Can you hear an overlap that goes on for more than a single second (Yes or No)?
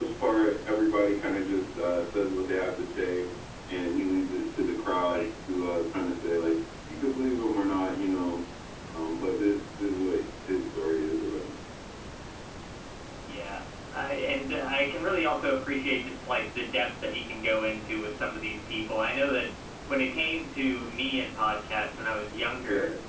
No